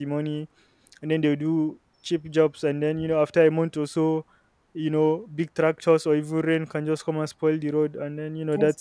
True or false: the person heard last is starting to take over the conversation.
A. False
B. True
B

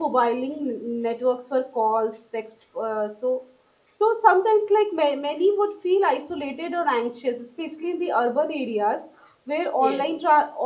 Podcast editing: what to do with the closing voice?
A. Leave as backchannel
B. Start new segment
A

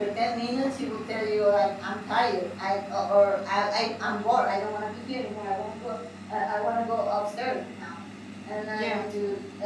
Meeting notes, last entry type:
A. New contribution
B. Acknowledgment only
B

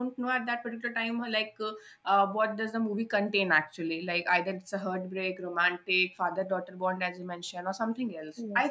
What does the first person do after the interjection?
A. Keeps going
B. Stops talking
A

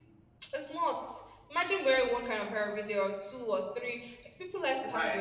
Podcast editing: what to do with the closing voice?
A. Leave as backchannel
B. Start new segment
B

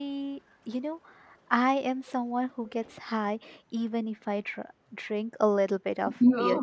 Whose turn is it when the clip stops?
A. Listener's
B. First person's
B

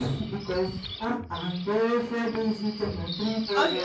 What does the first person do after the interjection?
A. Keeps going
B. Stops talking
B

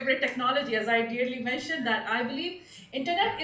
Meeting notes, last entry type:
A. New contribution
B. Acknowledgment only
B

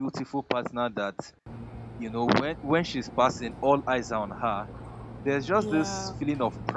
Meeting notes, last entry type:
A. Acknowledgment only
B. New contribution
A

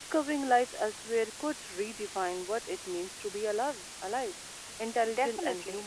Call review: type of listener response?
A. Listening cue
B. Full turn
B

